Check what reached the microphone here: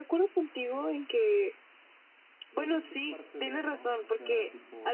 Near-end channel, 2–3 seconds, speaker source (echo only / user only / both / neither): both